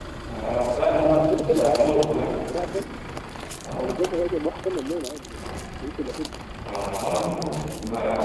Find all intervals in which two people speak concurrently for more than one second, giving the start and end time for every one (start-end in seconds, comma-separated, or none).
1.1-2.4